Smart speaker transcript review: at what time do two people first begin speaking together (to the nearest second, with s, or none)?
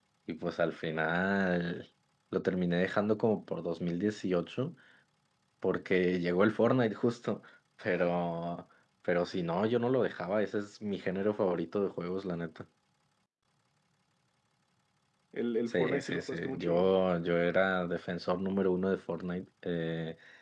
16 s